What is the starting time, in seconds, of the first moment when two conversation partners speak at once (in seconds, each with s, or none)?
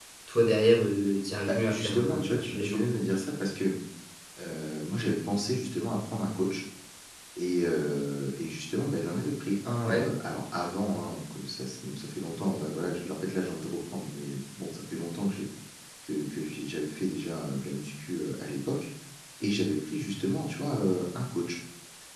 1.5 s